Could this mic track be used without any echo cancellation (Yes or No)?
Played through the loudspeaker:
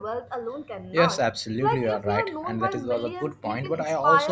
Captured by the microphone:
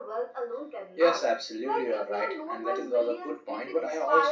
No